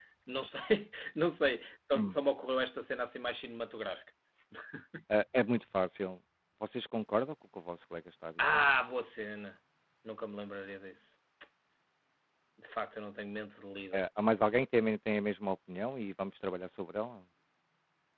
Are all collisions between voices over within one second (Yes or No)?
Yes